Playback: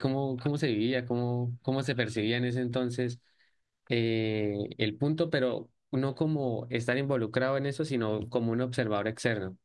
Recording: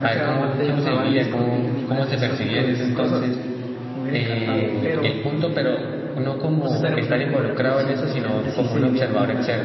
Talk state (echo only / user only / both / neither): both